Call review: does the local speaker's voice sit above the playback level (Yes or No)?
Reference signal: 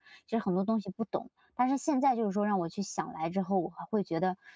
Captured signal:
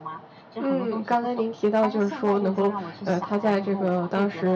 Yes